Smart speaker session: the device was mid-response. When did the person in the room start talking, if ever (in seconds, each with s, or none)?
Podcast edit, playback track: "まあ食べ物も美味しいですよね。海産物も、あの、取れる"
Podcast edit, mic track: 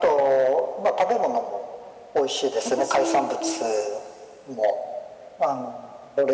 2.6 s